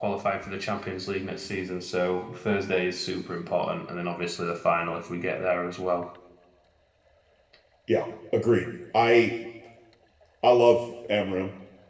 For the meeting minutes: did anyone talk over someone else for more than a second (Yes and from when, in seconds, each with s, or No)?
No